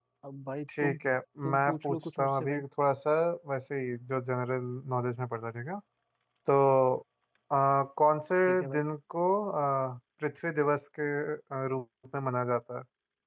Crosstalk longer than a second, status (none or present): present